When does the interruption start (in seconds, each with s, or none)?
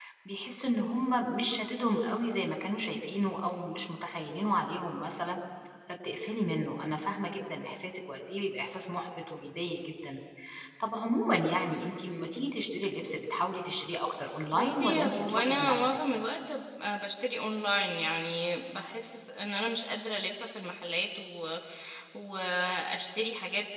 14.5 s